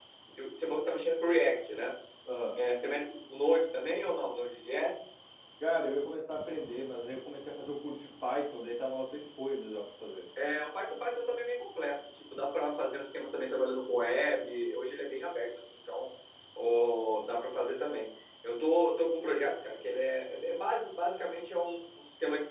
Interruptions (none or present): none